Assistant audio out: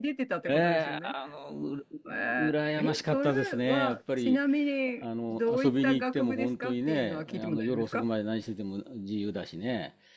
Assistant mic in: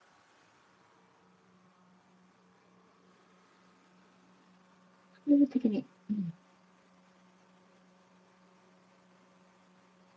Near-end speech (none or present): present